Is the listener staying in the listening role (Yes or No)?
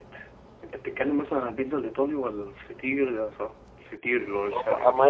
No